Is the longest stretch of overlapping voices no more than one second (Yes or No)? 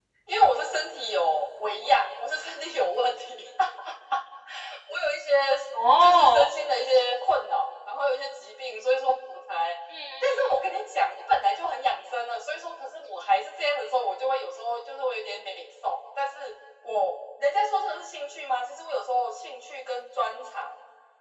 Yes